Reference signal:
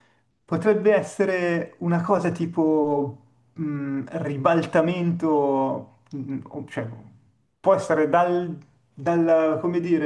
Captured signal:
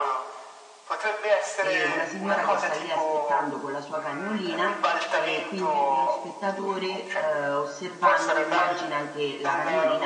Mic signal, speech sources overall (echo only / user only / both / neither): both